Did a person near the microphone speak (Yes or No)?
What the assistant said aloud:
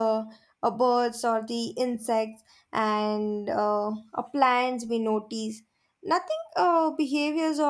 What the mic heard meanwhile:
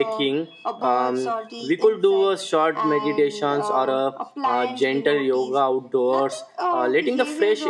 Yes